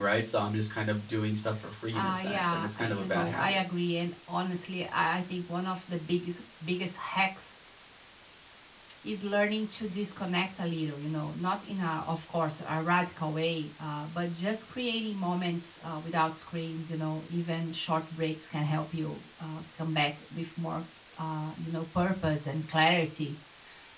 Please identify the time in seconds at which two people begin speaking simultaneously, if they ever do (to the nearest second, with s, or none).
2 s